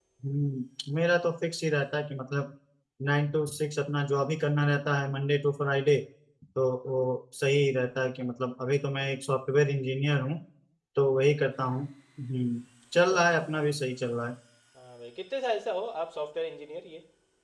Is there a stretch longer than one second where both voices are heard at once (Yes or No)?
No